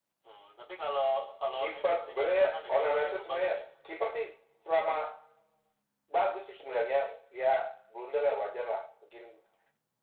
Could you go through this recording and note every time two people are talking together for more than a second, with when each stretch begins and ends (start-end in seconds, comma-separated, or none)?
1.6-3.6